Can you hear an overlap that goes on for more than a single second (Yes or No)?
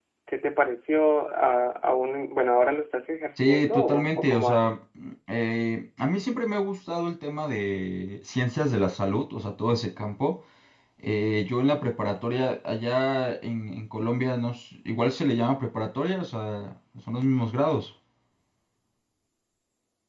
Yes